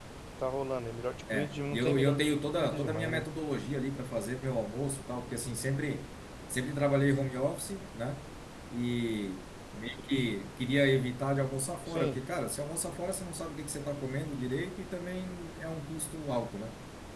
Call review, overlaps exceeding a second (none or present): present